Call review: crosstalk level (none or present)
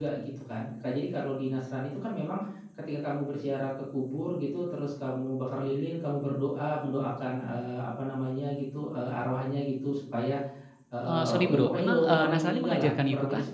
present